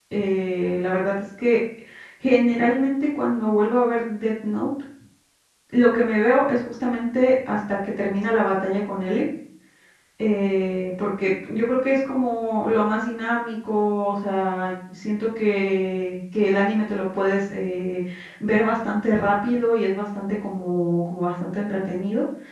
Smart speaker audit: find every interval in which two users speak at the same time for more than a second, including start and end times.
none

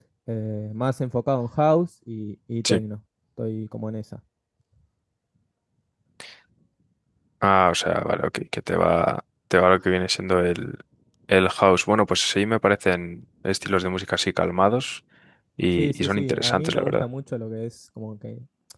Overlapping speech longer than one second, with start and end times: 15.8-17.1

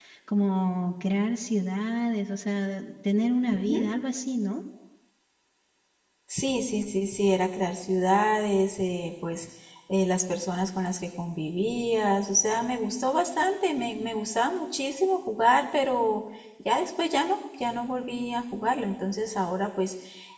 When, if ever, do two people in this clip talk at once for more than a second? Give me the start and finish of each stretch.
none

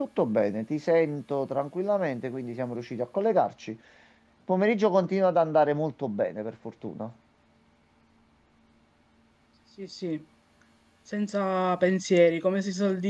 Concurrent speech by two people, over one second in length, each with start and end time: none

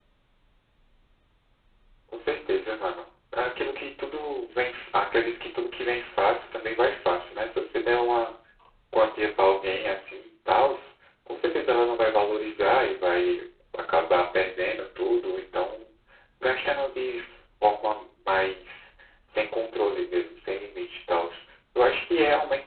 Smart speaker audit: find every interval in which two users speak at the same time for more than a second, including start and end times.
none

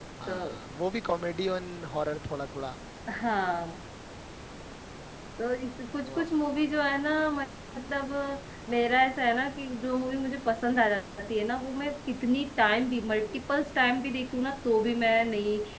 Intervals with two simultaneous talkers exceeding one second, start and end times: none

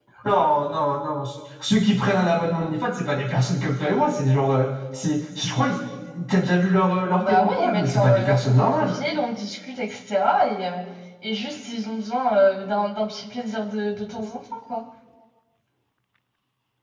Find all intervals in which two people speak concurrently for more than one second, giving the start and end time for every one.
7.2-9.0

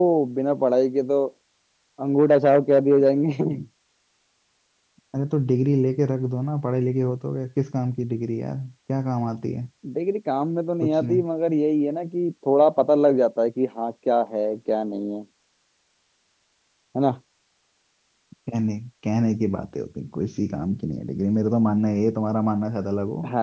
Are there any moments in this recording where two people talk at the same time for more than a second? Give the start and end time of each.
none

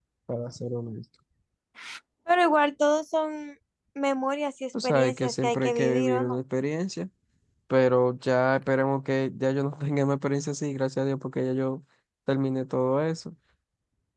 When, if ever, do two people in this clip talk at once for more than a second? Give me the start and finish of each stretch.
4.8-6.4

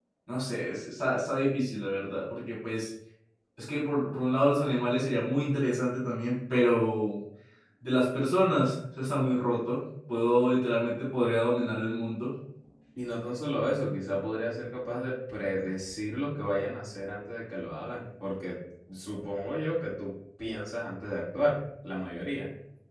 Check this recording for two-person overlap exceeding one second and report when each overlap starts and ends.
none

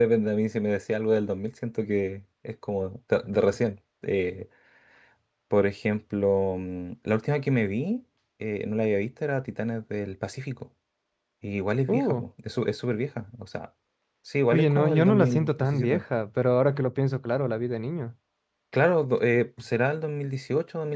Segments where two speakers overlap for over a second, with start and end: 14.5-16.0

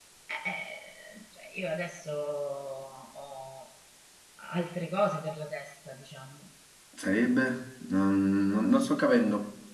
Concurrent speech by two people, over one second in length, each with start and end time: none

